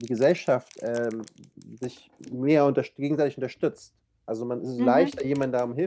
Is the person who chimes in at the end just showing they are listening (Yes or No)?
Yes